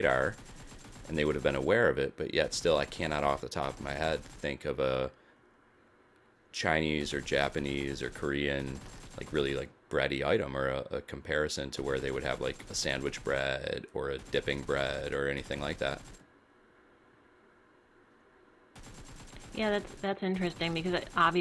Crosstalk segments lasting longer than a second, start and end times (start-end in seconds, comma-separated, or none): none